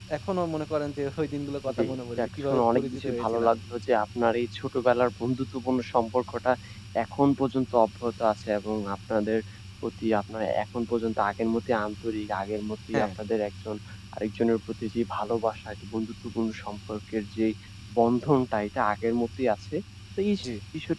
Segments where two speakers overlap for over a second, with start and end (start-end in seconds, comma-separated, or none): 2.2-3.5